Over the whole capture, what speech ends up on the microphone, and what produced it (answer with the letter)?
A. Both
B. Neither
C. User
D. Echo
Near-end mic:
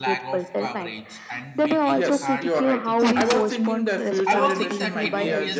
A